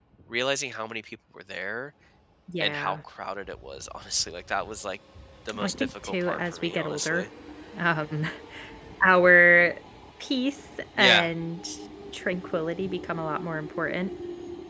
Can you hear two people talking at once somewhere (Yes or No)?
Yes